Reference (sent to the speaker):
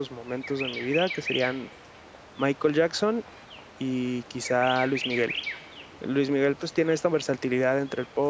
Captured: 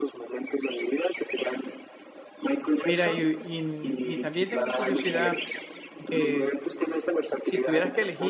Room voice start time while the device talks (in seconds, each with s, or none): 2.8 s